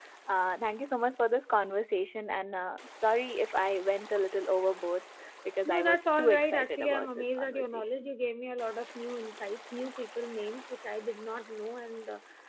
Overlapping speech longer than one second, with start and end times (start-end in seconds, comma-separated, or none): 5.6-8.1